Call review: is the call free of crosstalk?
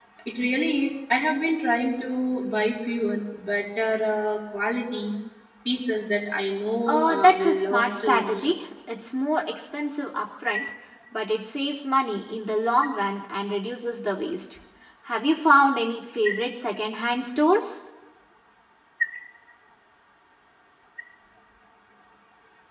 No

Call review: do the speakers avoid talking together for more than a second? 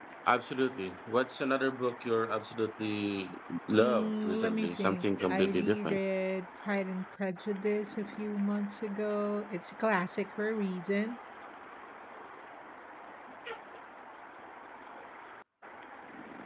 No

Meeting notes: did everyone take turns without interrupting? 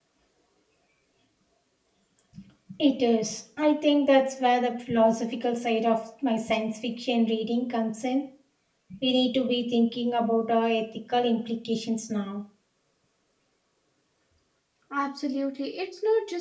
Yes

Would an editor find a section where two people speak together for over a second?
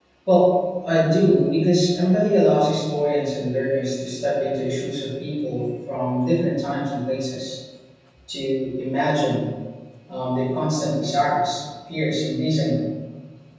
No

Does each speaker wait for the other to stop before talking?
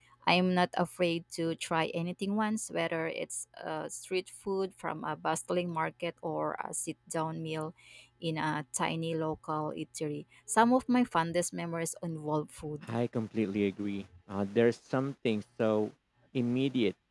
Yes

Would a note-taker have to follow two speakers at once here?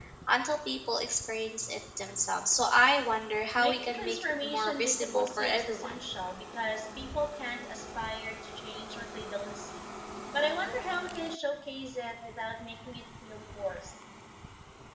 Yes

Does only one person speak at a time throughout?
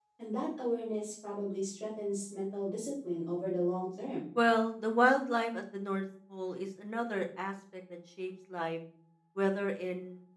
Yes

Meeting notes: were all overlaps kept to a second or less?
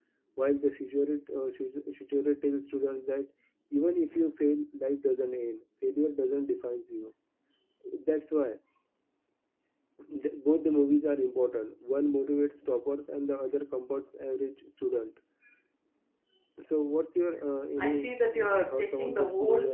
No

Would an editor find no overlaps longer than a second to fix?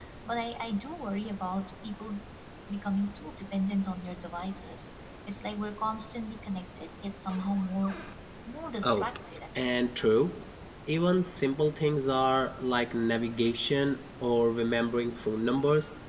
Yes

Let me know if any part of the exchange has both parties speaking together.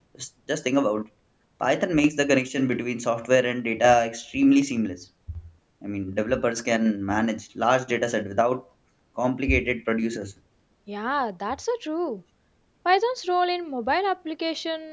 No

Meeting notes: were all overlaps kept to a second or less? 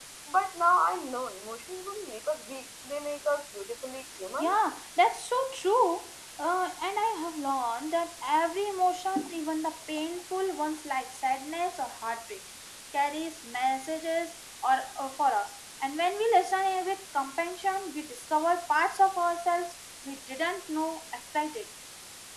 Yes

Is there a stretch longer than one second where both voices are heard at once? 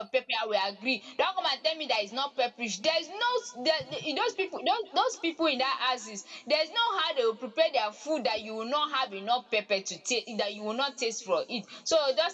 No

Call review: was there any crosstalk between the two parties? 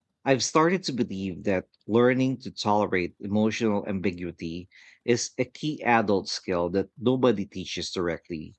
No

